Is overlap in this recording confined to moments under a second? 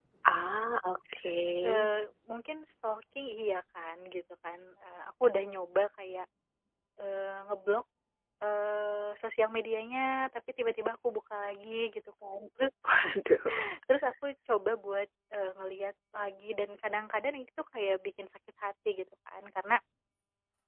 Yes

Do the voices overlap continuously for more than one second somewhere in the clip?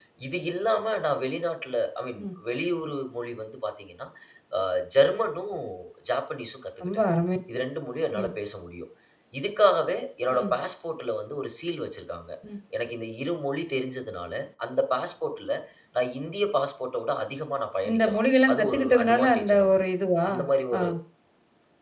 Yes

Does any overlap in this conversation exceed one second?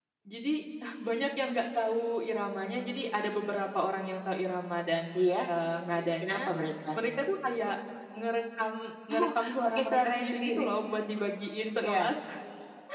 Yes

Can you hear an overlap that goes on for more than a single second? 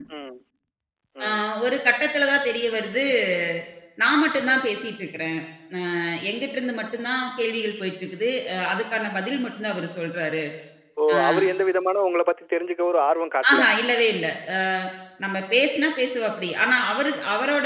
No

